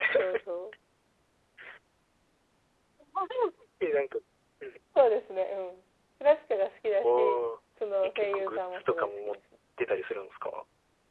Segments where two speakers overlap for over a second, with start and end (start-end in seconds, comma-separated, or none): 8.0-9.4